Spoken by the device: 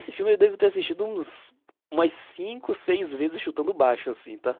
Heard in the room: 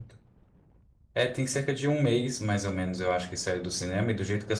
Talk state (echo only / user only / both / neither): user only